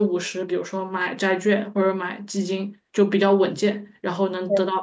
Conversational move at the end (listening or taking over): listening